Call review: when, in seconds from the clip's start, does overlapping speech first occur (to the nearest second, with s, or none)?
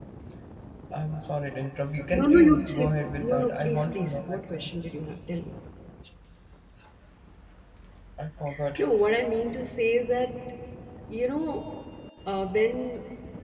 2 s